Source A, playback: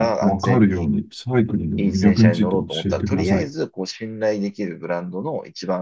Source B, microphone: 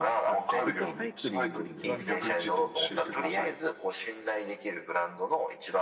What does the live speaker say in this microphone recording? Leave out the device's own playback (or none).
僕がサイクリングを一番